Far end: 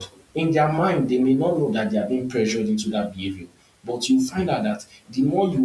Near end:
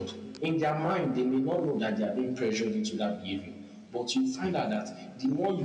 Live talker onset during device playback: none

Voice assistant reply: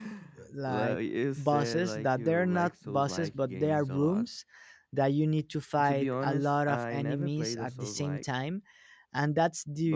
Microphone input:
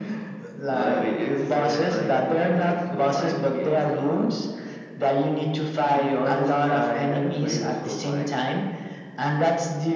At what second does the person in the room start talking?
none

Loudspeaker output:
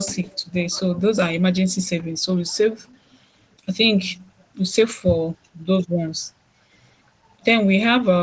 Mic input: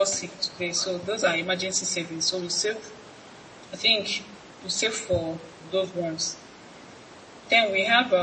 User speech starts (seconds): none

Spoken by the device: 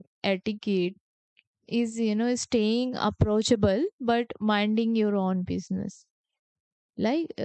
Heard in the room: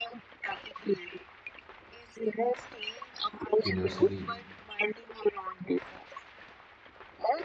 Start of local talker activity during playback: 3.6 s

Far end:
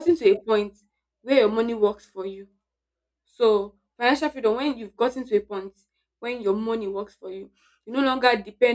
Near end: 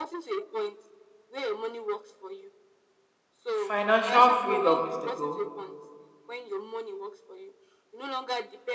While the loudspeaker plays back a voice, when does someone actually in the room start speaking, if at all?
3.5 s

